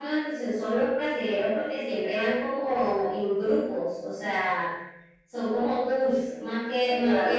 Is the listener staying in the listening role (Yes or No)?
Yes